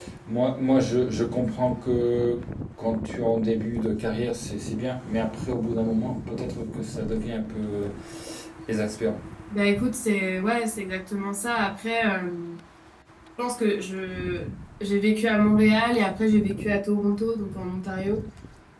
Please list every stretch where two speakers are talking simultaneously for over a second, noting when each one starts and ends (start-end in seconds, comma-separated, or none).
none